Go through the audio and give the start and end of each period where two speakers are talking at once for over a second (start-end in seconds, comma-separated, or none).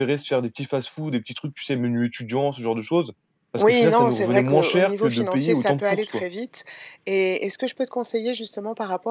3.6-6.2